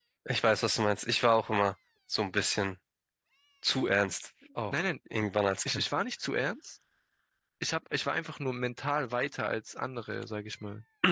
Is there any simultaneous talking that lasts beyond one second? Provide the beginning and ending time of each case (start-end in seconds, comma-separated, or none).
none